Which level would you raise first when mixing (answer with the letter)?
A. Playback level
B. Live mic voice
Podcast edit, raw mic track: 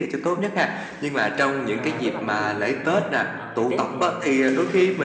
B